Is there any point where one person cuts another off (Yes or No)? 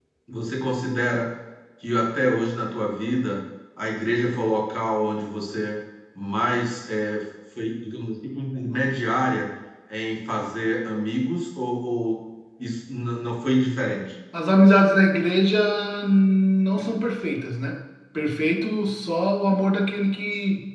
No